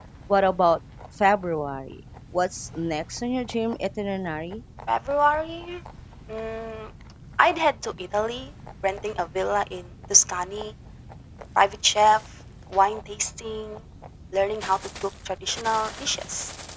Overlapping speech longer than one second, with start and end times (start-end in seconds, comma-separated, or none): none